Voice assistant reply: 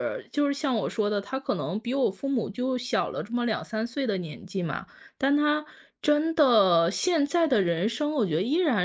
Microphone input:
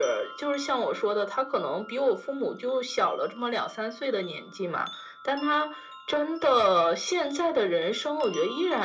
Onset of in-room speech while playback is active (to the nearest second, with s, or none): none